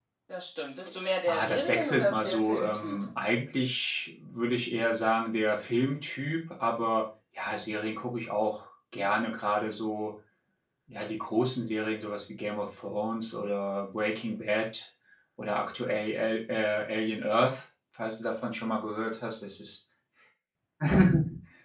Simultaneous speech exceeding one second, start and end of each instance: 1.3-3.0

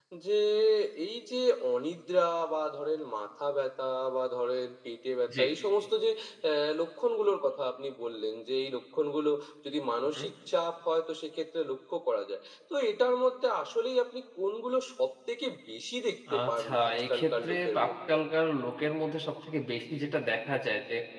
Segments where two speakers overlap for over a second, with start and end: 16.4-17.9

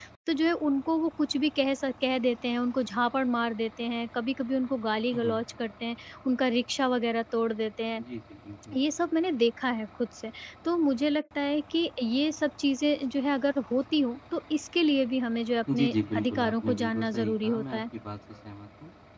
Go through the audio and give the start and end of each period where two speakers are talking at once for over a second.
15.8-17.8

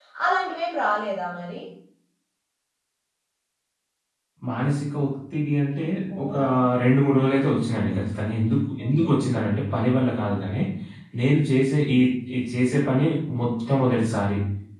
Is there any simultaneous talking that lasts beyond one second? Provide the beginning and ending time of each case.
none

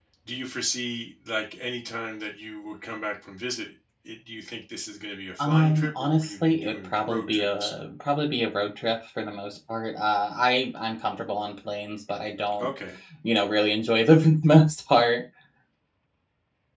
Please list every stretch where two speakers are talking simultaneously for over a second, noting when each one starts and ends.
5.4-7.7

